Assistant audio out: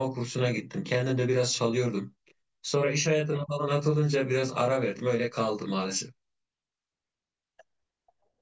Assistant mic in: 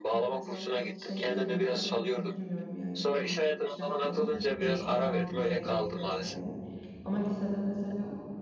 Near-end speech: present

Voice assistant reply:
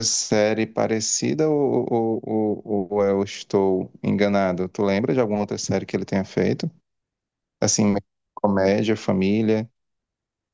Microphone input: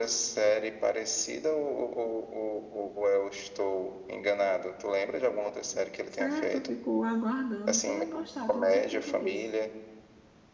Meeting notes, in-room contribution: present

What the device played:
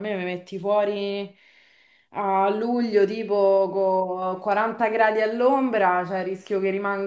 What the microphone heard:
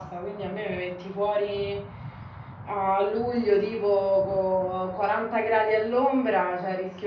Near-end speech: none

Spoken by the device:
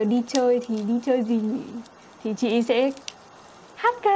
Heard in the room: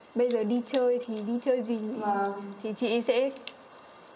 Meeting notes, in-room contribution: present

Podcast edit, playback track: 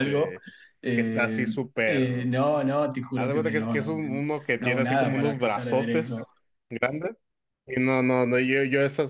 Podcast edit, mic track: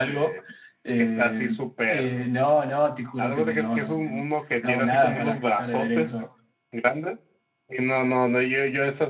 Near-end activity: none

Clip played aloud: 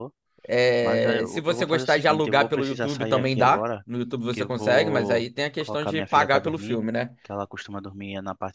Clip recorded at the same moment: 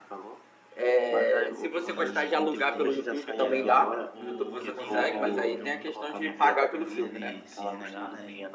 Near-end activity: present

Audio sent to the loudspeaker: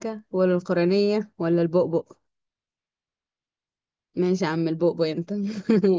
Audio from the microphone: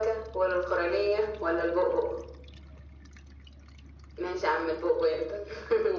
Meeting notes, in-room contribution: none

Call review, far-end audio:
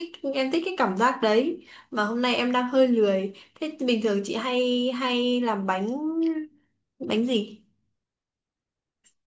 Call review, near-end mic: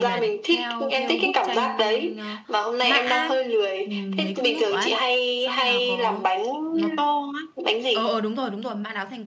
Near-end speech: present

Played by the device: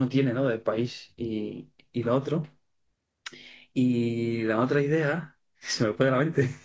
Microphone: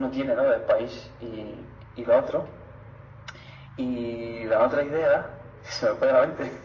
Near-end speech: none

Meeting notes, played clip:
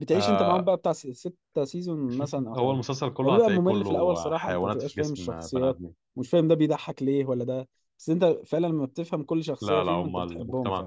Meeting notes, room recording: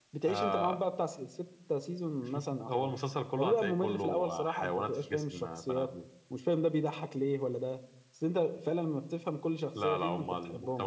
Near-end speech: none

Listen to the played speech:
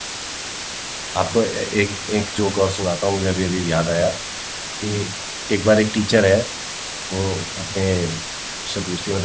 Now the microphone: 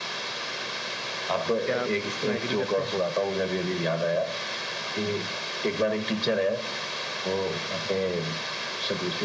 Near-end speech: present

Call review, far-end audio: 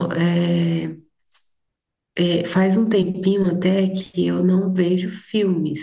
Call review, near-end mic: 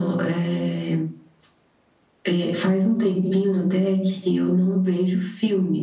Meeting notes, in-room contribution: none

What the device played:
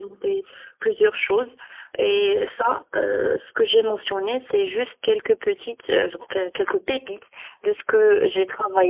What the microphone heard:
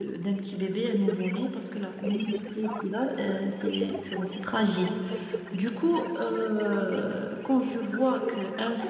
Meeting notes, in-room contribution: present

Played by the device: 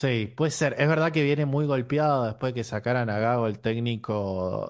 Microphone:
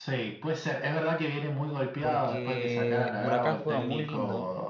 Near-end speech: present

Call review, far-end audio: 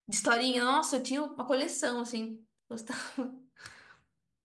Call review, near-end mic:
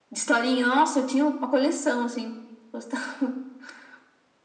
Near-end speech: none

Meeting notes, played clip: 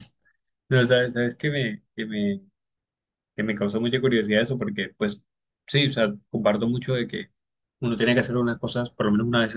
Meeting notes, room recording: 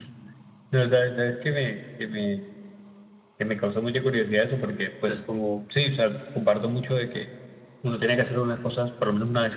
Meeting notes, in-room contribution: present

